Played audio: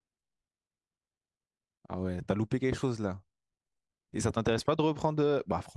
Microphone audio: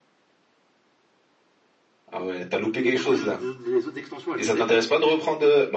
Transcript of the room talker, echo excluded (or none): Mais du coup, les autres, les autres- extensions, elles sont bien.